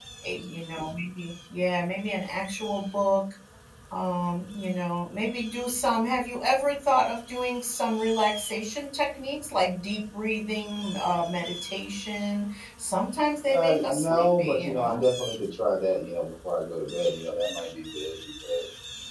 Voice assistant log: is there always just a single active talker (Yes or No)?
No